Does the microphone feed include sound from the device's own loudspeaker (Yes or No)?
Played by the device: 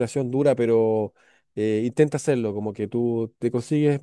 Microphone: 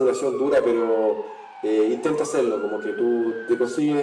Yes